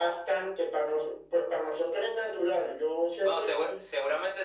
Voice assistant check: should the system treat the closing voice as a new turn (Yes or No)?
Yes